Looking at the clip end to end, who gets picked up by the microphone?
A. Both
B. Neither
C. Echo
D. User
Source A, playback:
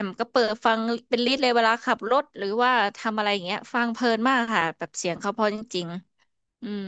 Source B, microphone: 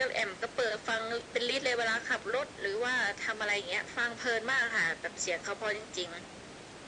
C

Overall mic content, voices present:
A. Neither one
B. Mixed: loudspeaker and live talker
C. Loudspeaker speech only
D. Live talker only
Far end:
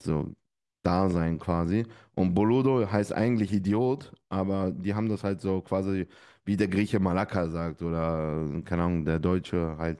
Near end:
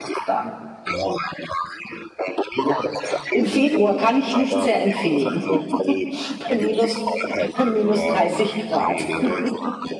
B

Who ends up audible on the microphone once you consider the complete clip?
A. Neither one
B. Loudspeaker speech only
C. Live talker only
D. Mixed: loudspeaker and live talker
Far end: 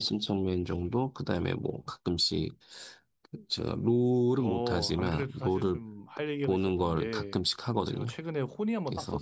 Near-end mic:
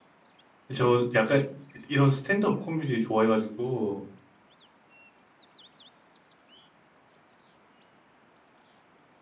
C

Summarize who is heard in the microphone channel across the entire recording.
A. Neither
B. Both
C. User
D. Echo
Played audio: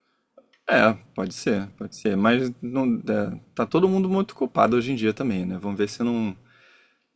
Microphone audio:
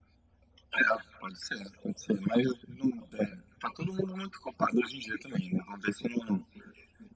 D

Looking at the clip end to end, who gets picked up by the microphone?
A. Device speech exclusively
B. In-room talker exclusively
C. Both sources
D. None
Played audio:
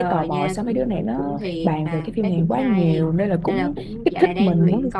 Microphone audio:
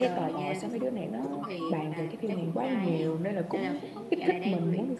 C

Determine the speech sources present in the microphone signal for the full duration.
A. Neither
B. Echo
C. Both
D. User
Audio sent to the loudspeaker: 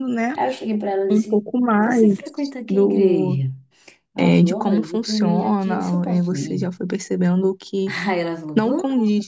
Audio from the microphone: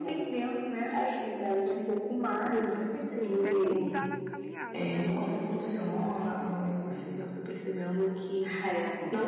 C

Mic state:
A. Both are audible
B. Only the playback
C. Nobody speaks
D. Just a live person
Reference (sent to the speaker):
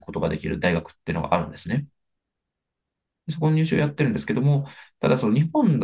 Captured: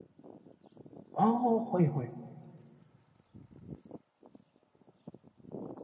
D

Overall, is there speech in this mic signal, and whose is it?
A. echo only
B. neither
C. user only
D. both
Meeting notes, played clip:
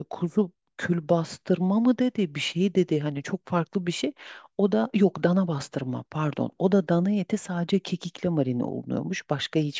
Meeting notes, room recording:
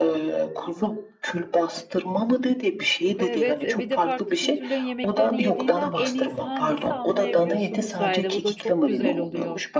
D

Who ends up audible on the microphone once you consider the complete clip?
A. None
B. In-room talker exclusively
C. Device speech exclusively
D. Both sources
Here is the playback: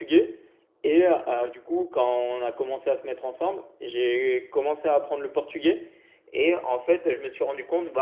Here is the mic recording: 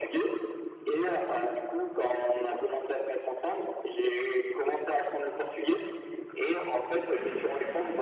C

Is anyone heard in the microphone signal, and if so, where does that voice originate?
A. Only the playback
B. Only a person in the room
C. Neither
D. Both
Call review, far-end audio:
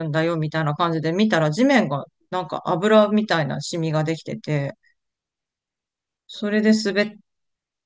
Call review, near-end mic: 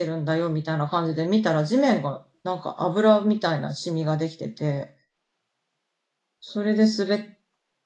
A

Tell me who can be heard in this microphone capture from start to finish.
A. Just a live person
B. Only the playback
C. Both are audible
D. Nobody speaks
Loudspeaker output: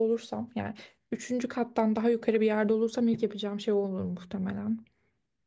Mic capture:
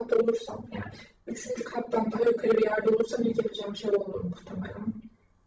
B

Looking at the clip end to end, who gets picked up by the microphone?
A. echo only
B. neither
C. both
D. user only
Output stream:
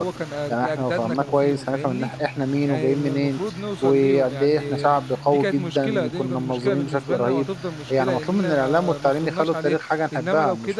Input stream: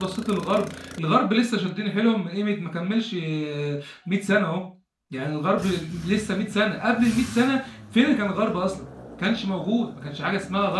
D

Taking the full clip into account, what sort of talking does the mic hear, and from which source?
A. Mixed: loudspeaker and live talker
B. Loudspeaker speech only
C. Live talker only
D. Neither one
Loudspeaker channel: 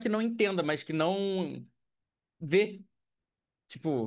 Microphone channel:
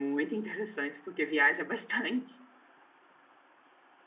C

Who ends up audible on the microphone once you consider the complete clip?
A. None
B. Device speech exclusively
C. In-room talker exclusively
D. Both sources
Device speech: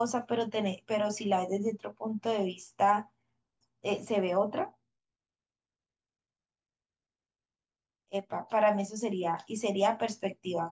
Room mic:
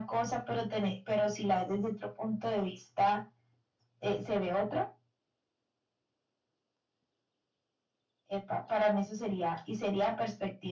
B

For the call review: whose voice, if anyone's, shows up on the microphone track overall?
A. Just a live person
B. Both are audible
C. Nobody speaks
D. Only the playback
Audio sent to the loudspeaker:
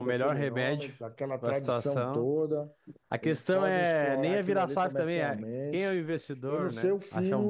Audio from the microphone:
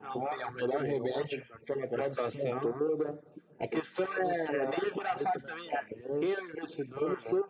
D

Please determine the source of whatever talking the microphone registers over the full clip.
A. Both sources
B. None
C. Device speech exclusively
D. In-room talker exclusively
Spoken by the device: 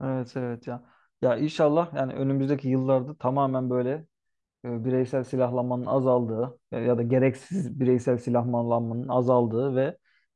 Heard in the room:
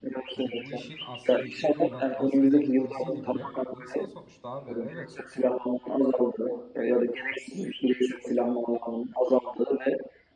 A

